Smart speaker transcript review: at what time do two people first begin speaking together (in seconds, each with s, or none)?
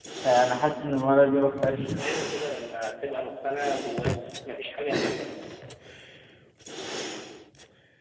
none